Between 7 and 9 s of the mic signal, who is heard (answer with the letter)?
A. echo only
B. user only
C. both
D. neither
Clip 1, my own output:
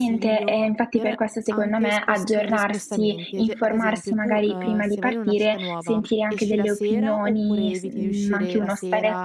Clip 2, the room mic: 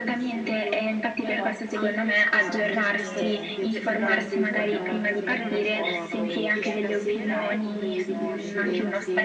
C